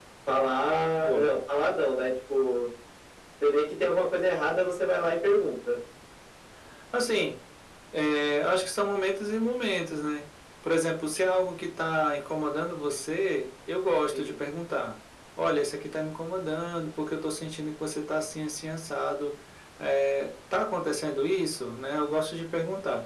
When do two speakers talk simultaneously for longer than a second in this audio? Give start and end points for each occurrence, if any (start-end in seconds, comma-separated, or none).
none